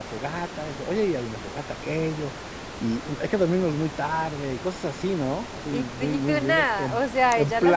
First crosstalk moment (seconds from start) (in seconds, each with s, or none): 5.7 s